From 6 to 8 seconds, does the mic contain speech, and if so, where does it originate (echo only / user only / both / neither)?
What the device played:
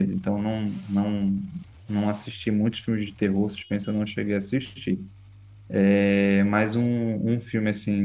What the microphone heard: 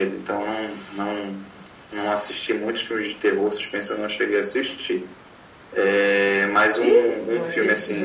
both